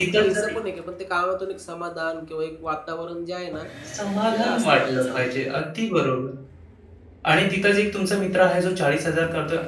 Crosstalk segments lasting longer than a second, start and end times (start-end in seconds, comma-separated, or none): 4.3-5.6